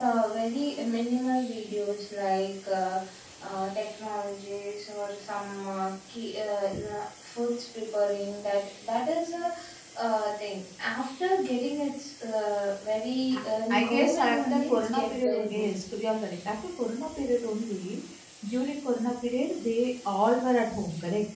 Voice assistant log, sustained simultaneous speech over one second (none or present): present